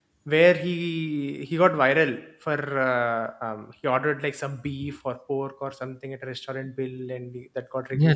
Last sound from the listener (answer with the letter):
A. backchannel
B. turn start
B